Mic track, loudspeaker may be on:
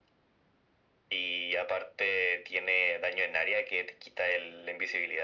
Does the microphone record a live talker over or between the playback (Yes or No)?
No